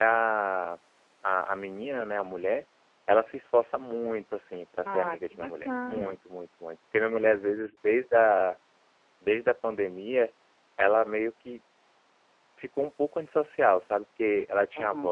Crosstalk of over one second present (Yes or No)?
Yes